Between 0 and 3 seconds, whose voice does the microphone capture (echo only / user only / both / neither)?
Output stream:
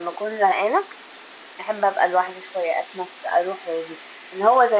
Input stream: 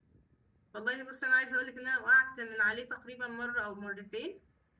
user only